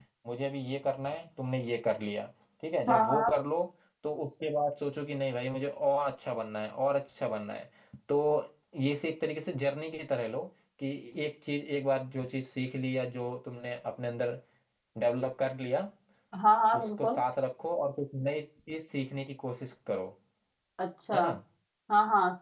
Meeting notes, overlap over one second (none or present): none